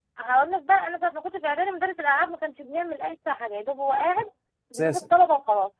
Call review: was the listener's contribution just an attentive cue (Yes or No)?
Yes